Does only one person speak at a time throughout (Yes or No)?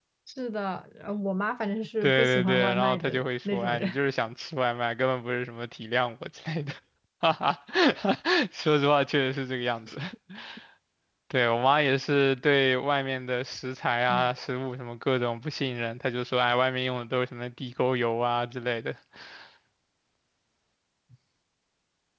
No